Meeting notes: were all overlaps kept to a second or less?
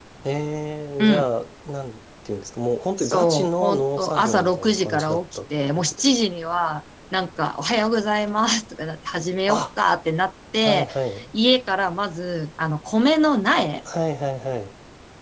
No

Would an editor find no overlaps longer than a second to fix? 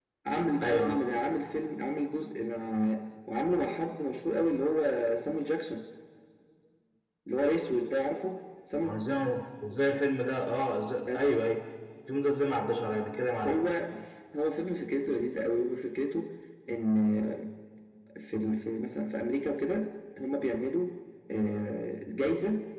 Yes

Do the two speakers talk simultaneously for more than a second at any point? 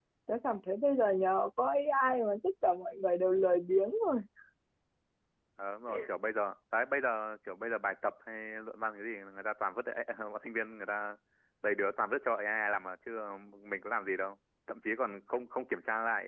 No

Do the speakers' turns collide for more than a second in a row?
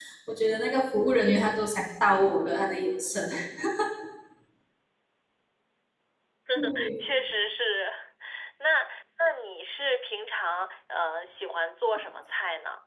No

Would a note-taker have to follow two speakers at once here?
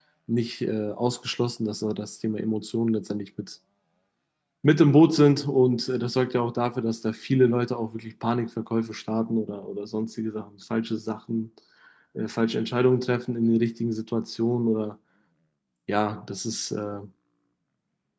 No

